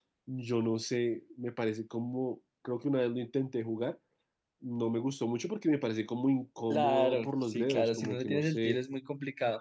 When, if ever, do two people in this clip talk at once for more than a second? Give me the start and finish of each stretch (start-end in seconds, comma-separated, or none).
6.7-8.8